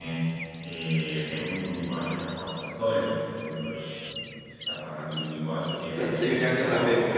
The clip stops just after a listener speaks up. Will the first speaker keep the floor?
No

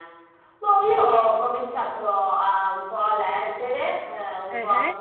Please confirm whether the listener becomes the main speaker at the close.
No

